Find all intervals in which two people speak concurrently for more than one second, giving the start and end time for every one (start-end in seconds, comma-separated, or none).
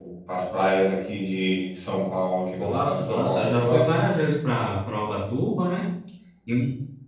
2.6-3.9